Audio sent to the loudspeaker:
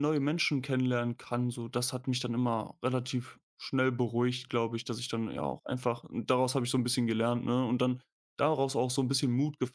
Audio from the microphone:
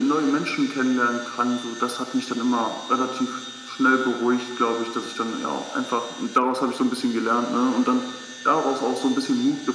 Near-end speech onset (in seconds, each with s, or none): none